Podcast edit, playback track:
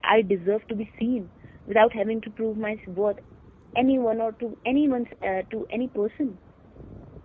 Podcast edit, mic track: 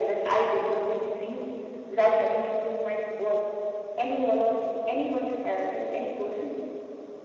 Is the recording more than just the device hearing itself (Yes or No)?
No